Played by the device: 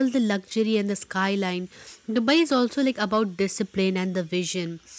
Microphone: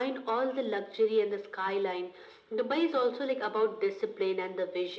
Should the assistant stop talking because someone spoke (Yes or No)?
No